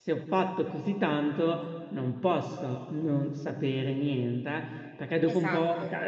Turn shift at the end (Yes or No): No